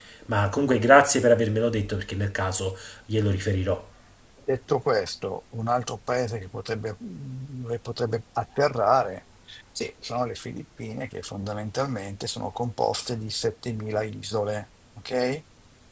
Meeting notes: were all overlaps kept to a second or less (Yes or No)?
Yes